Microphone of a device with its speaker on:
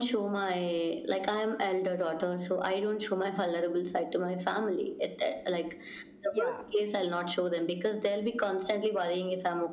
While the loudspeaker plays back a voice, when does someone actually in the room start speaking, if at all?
6 s

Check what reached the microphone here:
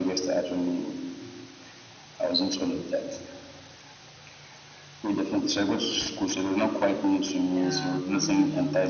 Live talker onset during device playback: 8 s

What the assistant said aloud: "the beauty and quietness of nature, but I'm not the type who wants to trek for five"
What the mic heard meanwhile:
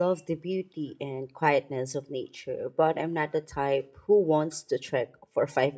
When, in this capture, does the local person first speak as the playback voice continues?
none

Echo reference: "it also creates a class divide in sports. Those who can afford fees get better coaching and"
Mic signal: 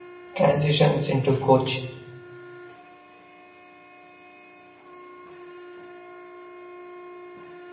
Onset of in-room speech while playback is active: 0 s

